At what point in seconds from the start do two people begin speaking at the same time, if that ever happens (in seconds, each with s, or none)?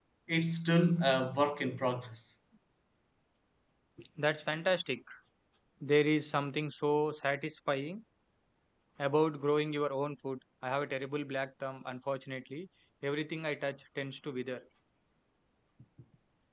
none